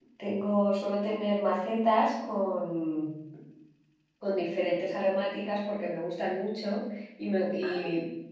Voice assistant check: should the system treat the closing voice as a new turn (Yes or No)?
No